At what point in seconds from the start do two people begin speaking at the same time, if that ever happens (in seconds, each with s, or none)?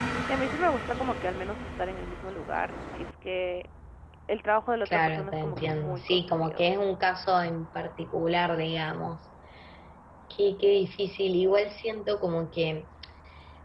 4.8 s